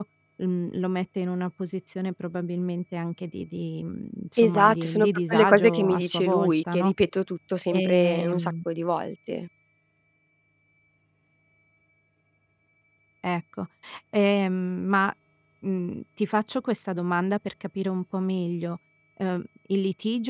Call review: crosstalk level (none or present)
present